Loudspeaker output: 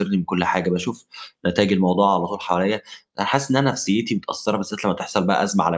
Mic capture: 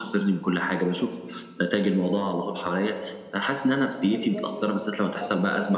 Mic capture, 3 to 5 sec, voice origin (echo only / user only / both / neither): both